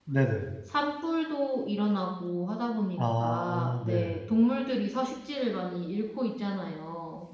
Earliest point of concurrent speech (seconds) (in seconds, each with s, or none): 3.0 s